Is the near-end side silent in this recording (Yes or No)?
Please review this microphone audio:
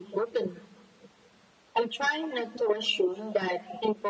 Yes